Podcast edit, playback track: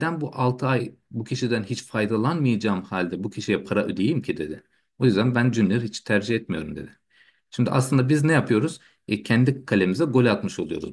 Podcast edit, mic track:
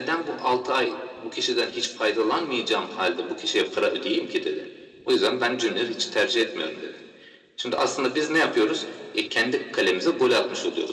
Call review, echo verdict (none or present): present